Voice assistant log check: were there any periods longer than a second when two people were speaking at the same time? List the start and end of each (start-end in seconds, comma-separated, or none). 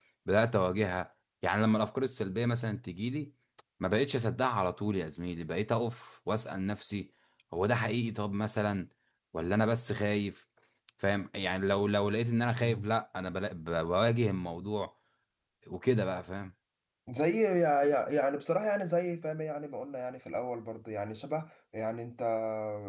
none